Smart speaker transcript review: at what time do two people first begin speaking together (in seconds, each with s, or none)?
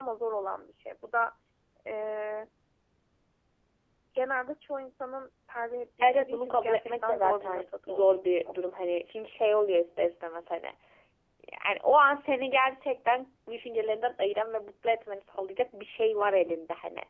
6.0 s